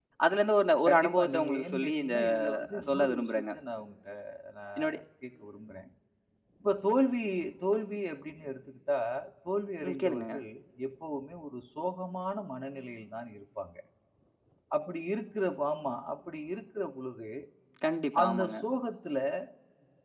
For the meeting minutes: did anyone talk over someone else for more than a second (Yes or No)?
Yes